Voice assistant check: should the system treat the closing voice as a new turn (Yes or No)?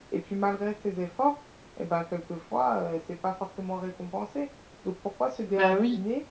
No